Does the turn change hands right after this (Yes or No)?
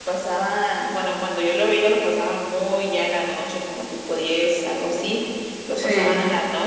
No